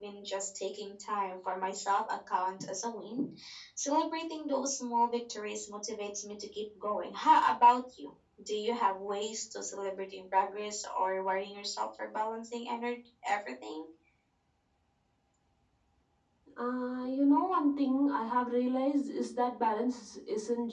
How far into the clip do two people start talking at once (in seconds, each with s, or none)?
none